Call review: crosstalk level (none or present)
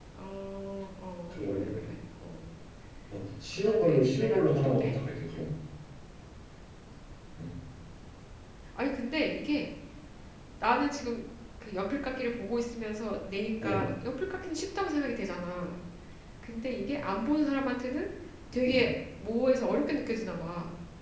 present